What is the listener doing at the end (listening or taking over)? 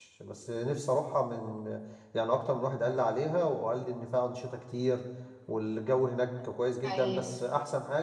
listening